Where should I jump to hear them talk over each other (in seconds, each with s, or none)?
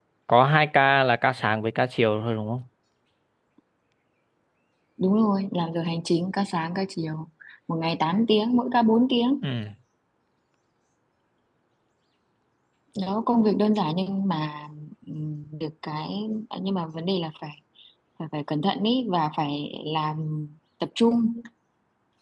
none